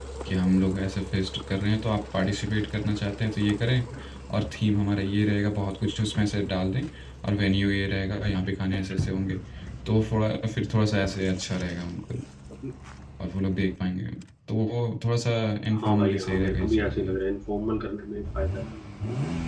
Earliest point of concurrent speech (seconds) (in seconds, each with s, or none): 15.8 s